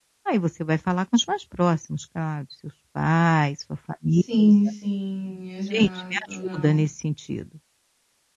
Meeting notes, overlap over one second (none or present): none